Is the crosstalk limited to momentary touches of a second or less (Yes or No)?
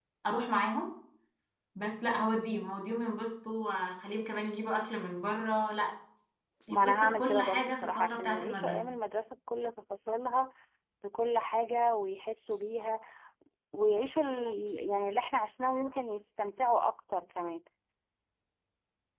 No